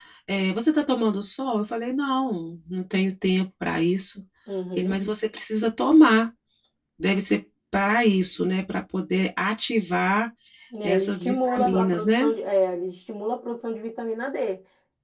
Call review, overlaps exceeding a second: present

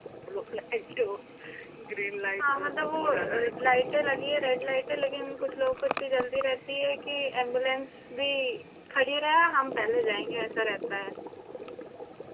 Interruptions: present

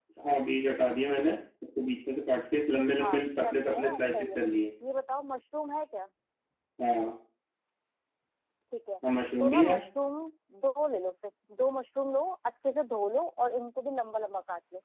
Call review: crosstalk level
present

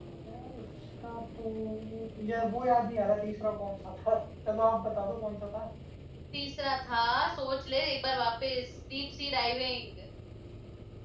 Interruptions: none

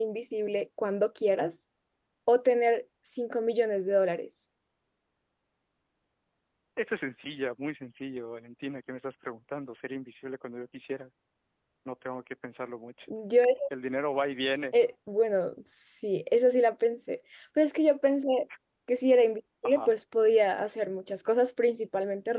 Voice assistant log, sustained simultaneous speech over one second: none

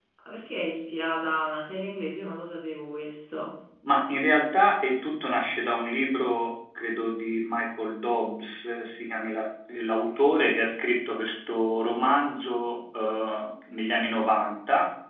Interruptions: none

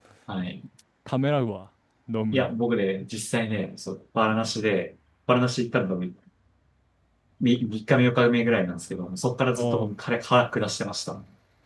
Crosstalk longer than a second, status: none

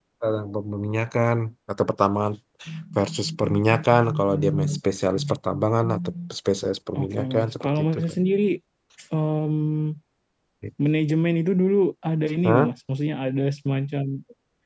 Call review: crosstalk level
present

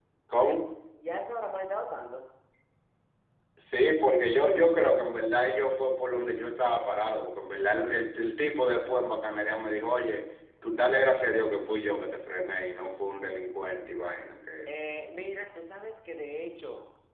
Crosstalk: none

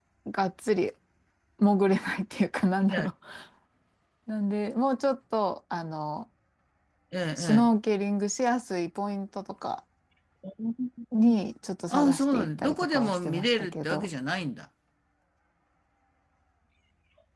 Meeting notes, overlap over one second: present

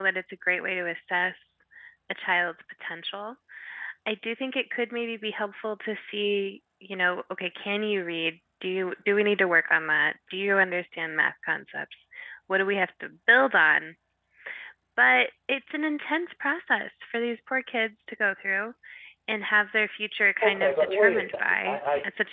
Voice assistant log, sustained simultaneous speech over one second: present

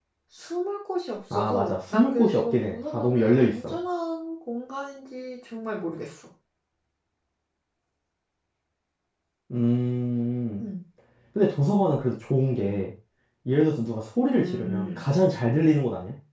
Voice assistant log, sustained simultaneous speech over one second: present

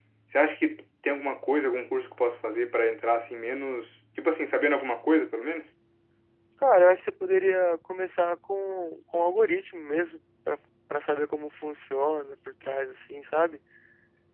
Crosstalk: none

